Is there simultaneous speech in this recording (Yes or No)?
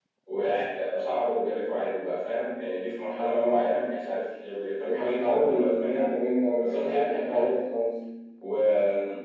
Yes